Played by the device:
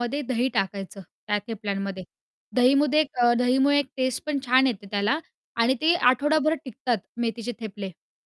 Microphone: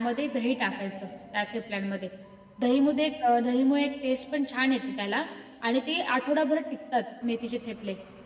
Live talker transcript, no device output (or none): none